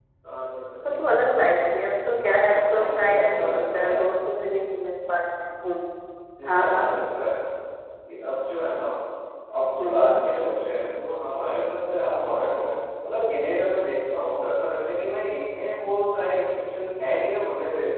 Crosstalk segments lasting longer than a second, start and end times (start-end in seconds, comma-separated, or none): 2.2-4.1